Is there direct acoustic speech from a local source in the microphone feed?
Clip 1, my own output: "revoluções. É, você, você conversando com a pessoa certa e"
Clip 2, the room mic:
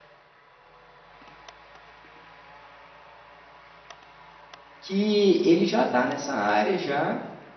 Yes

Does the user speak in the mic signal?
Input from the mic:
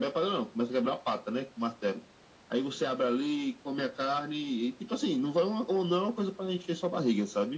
No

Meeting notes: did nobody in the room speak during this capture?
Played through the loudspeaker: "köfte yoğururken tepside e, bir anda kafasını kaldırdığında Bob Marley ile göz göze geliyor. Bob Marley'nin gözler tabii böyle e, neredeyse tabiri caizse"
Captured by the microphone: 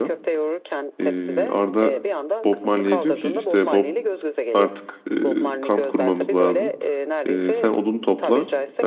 No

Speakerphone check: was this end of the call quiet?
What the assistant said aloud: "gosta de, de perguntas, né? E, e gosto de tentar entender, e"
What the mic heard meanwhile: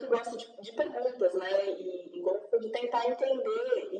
Yes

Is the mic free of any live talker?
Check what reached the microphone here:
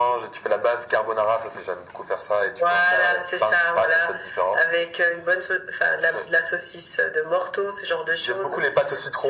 Yes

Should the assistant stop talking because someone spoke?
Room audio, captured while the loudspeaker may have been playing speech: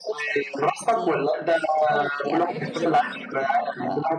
Yes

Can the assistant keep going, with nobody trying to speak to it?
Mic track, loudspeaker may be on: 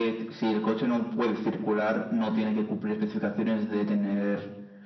Yes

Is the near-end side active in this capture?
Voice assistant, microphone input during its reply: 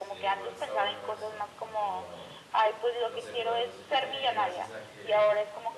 Yes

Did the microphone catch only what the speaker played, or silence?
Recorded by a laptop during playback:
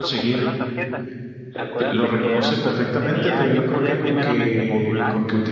No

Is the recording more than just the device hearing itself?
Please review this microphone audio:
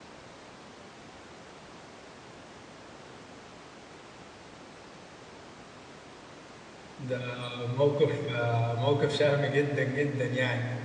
Yes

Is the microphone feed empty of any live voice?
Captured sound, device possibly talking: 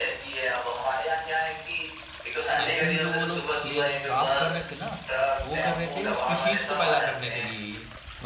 No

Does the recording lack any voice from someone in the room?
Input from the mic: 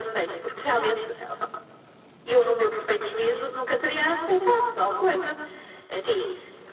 Yes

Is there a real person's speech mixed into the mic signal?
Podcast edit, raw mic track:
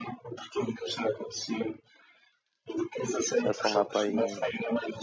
Yes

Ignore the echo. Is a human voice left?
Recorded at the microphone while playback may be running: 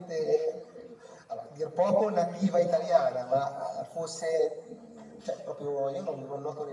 No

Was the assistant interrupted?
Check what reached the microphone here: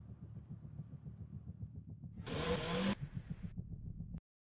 No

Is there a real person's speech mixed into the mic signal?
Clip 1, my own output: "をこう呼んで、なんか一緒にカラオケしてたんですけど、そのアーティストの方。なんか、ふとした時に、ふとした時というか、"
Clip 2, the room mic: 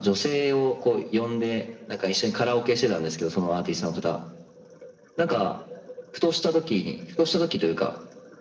No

